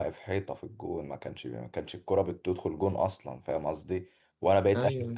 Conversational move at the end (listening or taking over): listening